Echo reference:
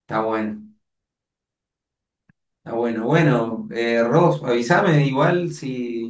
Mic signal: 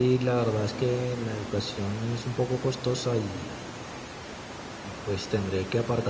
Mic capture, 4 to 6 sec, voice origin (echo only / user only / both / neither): user only